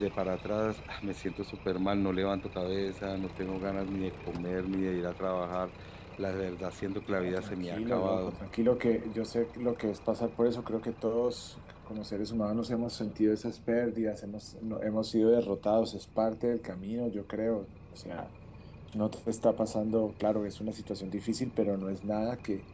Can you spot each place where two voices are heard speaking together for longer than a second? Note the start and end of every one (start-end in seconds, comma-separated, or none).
7.0-8.4